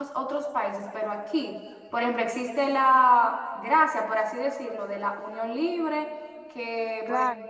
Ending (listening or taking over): listening